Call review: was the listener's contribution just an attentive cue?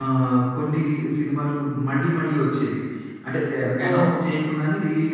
Yes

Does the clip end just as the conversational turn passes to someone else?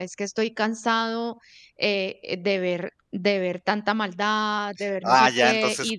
Yes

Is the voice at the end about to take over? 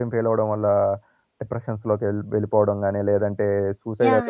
Yes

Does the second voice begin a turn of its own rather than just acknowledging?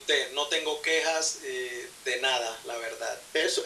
Yes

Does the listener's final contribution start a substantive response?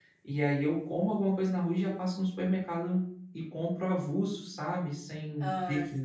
No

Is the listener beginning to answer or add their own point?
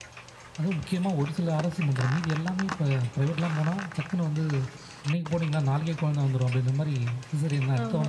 Yes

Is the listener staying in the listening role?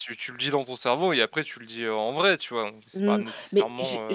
No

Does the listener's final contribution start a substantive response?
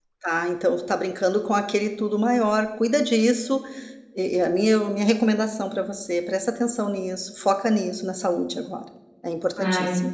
Yes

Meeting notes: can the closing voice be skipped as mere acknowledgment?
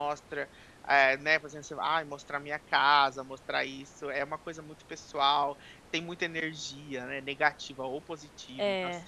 Yes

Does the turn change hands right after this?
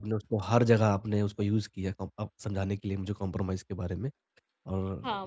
Yes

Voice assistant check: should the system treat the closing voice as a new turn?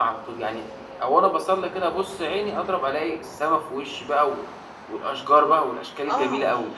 Yes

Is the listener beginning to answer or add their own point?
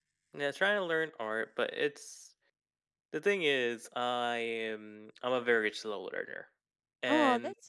Yes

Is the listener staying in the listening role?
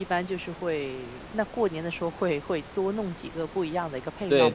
No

